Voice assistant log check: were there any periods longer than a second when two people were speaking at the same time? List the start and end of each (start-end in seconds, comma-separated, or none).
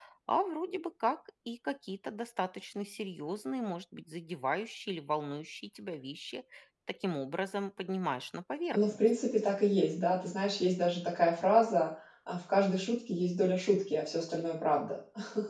none